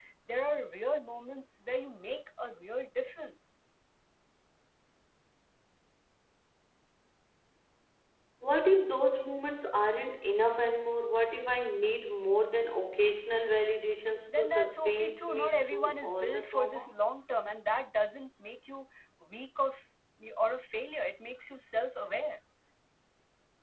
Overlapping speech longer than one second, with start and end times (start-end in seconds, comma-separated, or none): 14.3-16.9